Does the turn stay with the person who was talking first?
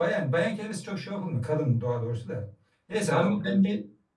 Yes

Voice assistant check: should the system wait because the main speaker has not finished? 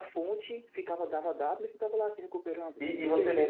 No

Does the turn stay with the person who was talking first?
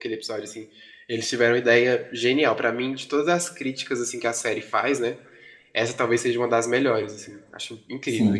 No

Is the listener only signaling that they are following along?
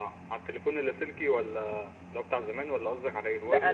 No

